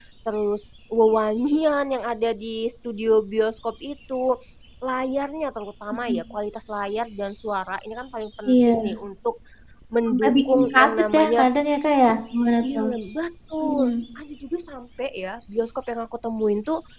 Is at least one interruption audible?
Yes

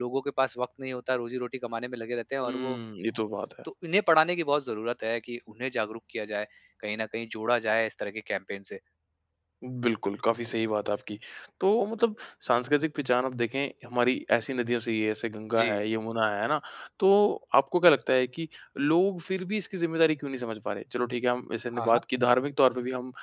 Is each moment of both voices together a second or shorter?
Yes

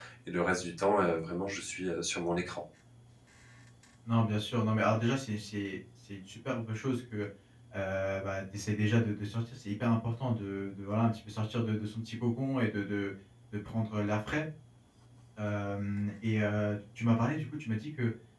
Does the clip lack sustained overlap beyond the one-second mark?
Yes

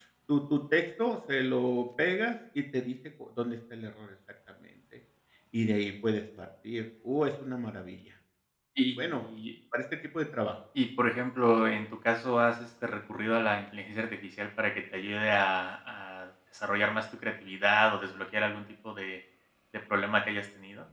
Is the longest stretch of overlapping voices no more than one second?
Yes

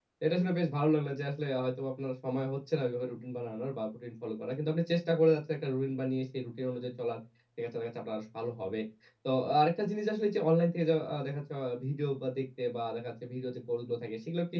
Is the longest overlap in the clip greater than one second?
No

